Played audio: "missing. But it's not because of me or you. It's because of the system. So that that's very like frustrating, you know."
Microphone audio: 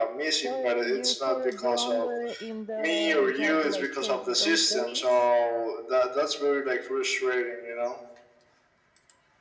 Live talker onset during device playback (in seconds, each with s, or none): 0.3 s